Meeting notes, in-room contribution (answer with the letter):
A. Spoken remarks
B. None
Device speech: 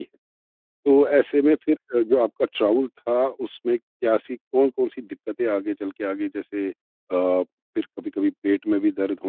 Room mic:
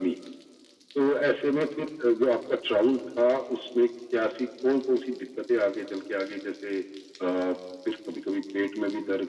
B